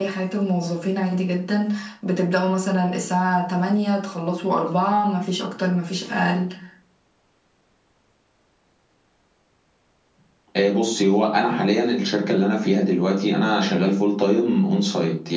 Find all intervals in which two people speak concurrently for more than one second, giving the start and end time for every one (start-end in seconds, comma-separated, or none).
none